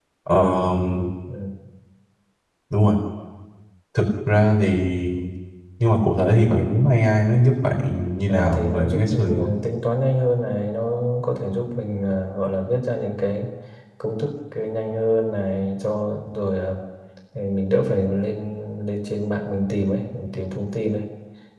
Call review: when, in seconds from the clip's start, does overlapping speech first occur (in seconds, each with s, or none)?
8.3 s